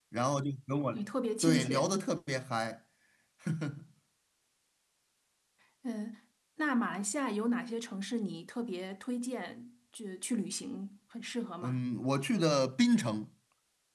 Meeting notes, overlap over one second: none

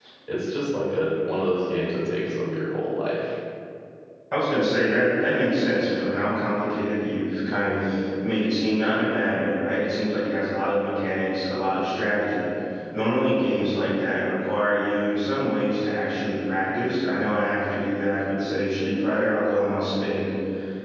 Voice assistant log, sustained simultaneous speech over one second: none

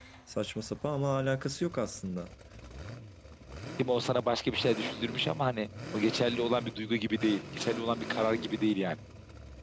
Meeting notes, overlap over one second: none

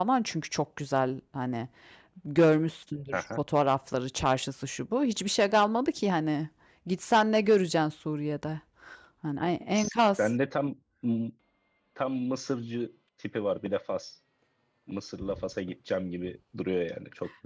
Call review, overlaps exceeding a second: none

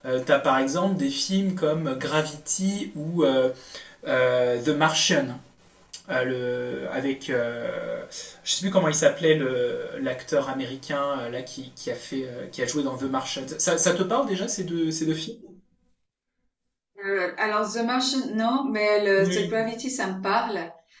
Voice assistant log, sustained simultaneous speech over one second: none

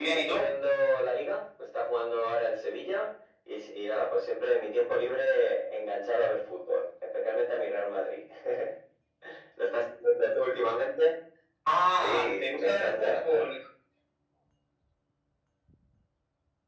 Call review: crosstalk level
present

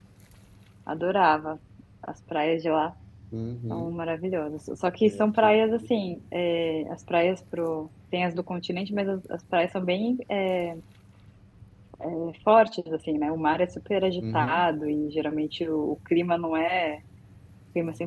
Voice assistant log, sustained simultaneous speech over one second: none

